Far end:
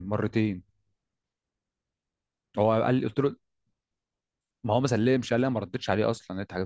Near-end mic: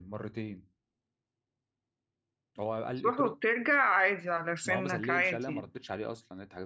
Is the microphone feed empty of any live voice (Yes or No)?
No